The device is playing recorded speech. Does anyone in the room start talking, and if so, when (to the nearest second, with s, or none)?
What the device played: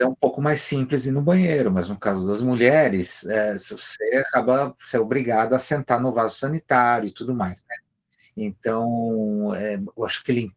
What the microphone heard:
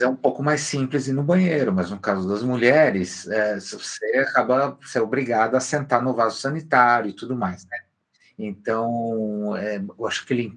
none